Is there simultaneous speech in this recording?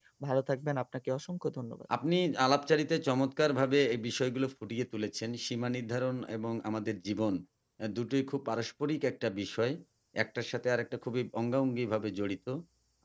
No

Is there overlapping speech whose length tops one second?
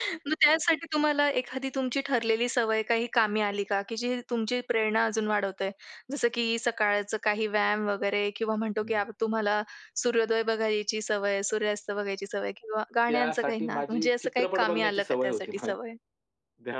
Yes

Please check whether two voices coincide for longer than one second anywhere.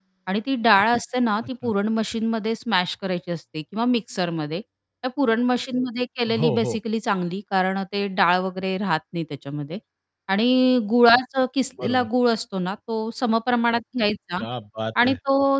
No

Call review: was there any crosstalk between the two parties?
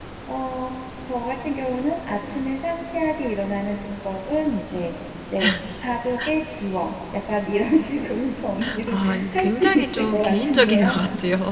Yes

